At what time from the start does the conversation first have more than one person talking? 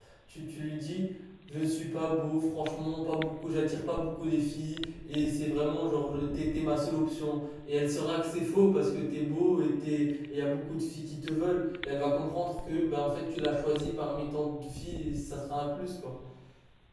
none

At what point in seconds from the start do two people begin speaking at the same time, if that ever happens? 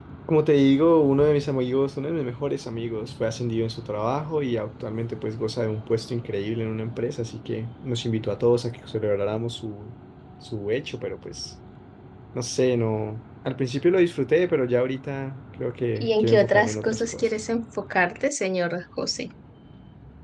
15.9 s

